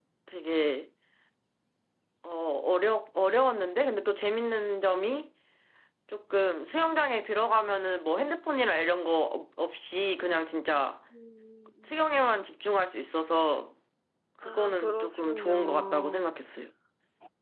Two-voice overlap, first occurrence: 14.4 s

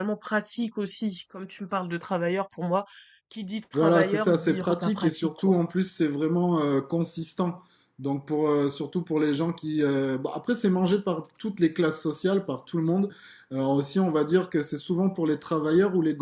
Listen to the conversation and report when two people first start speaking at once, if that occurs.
3.7 s

